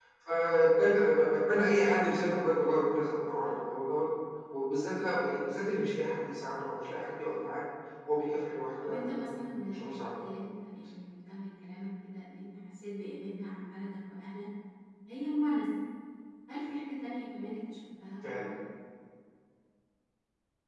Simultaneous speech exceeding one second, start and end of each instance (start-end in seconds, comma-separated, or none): 8.8-10.2